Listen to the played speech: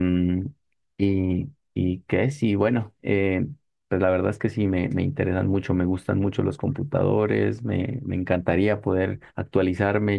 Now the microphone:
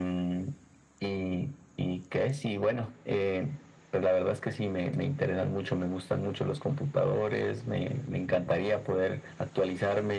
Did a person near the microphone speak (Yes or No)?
No